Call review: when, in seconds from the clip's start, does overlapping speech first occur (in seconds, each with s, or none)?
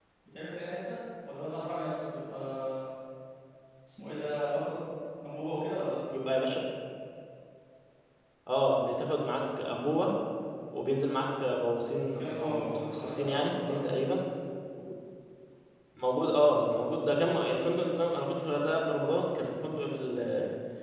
12.2 s